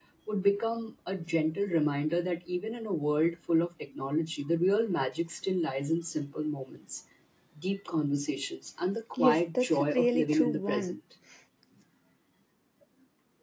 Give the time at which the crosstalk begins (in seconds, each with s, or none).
9.2 s